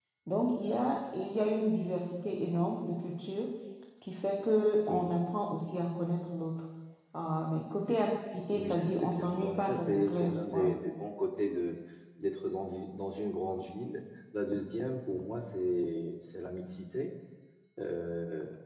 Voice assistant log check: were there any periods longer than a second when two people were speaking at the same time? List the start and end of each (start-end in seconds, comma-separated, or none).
8.5-10.7